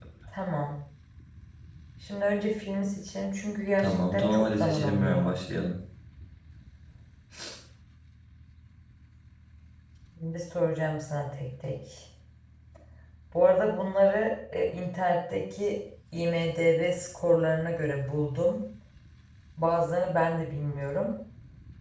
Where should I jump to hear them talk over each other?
3.8 s

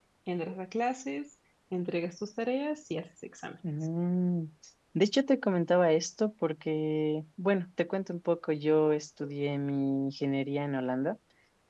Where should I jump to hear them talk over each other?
none

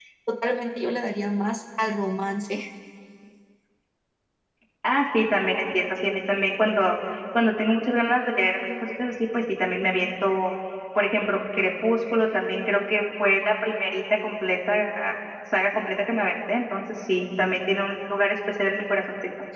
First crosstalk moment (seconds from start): none

